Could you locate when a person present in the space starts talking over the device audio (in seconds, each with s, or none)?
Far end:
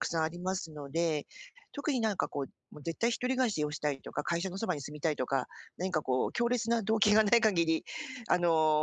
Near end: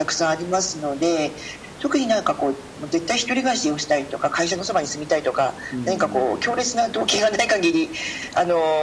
5.7 s